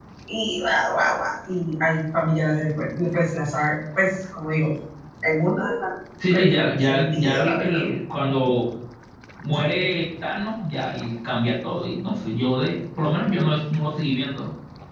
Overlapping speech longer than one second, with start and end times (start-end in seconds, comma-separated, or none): 6.3-7.8